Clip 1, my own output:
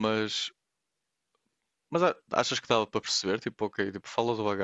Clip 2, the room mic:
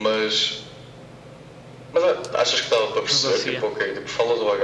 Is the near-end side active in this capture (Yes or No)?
Yes